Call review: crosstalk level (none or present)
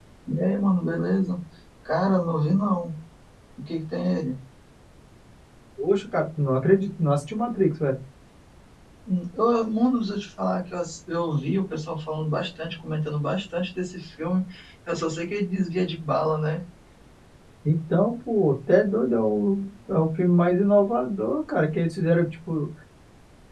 none